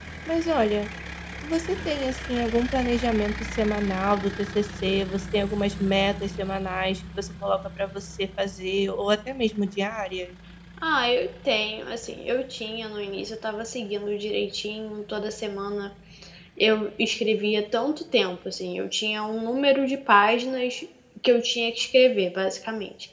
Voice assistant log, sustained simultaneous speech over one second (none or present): none